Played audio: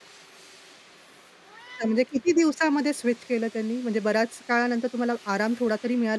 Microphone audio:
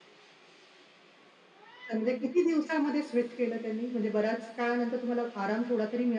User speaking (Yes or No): No